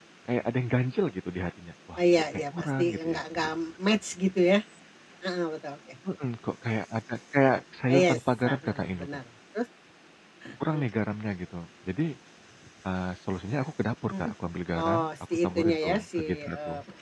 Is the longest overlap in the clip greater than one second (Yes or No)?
Yes